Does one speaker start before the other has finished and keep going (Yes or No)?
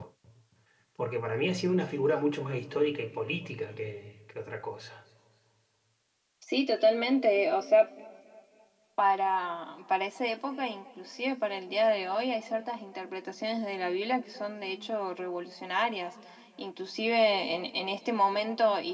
No